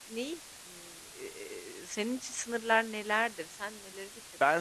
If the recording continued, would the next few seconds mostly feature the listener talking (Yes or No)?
Yes